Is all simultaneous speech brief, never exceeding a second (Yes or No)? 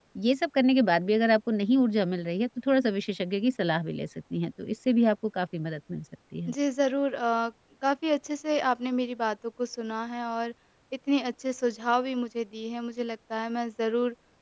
Yes